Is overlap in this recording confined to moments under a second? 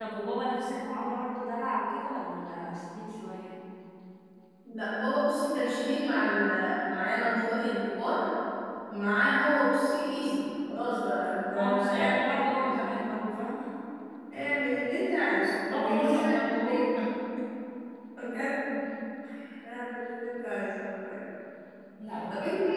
No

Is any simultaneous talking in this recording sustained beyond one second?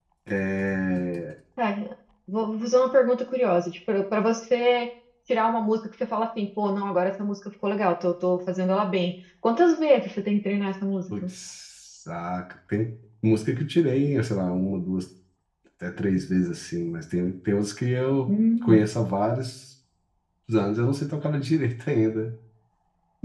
No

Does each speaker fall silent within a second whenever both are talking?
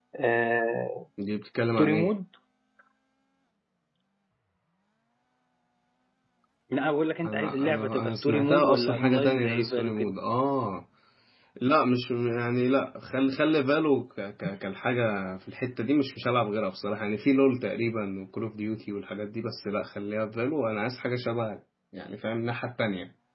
No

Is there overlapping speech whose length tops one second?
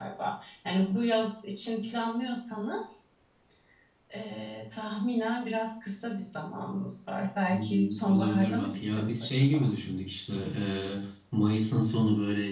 Yes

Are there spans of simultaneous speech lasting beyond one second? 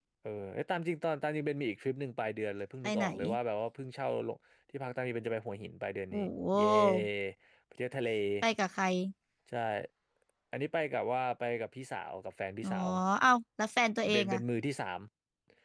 No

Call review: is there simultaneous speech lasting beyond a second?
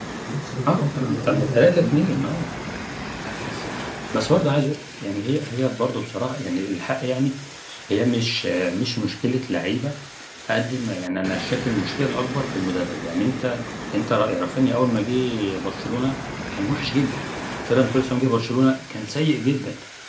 Yes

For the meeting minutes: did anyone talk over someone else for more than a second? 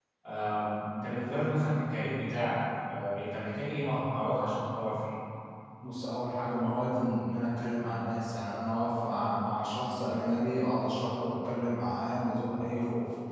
No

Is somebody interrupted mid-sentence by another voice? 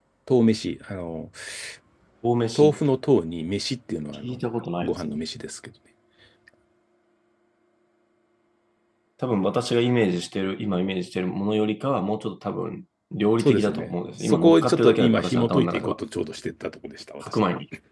Yes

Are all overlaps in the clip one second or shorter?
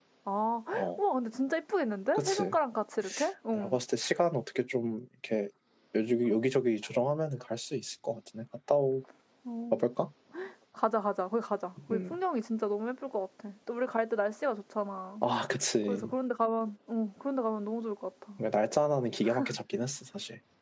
Yes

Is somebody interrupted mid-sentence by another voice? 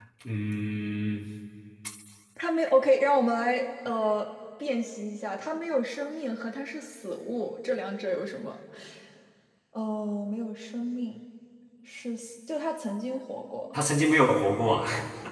No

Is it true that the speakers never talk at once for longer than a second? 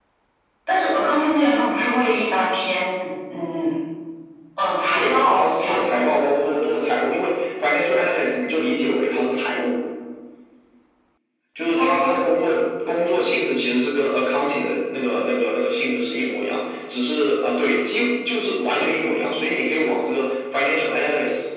No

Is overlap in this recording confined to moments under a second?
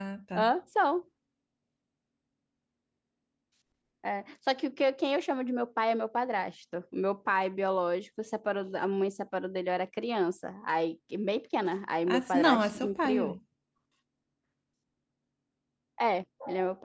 No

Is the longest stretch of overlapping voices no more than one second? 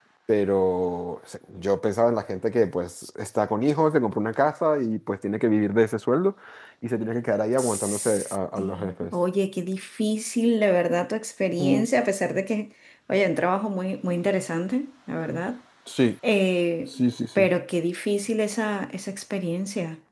No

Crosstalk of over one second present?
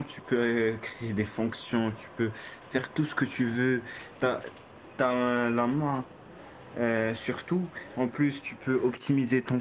No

